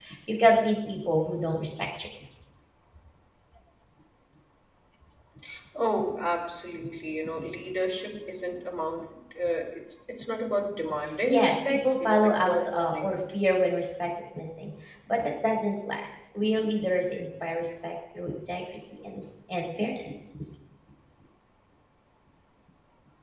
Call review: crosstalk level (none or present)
present